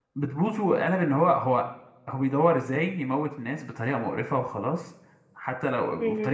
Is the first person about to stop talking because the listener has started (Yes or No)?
No